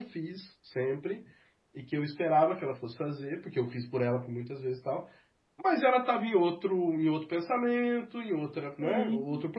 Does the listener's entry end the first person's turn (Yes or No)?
No